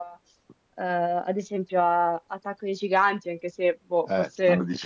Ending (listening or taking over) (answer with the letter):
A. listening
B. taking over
B